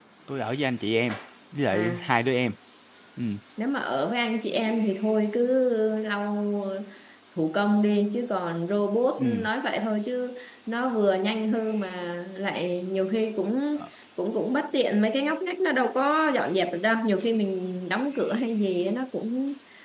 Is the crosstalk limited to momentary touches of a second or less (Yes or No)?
Yes